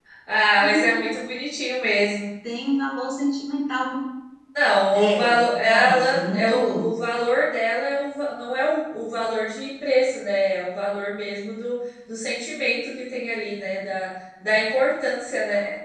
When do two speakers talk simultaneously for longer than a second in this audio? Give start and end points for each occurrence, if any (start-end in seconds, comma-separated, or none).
5.6-6.9